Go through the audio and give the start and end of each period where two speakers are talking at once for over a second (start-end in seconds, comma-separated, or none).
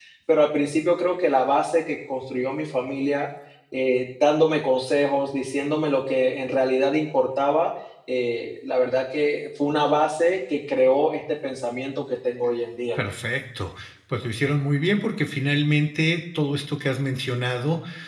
none